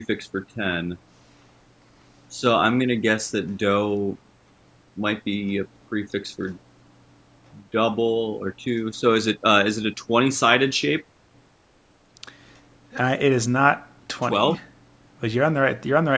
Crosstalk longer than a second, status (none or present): none